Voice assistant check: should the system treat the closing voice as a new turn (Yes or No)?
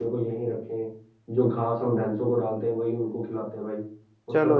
Yes